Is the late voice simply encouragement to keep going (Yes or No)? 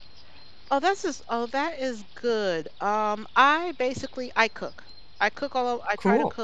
Yes